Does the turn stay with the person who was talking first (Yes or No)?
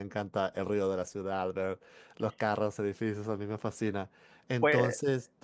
Yes